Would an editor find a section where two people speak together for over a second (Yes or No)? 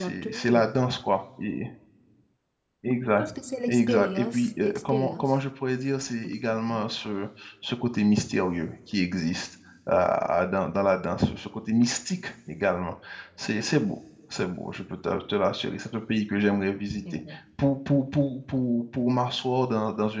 Yes